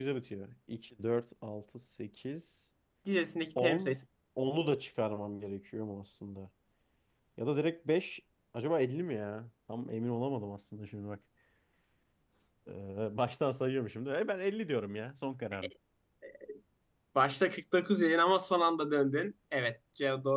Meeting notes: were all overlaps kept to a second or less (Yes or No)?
Yes